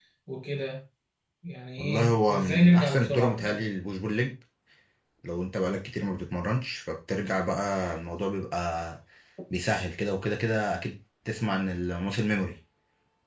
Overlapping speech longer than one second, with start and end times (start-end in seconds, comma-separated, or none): 1.8-3.6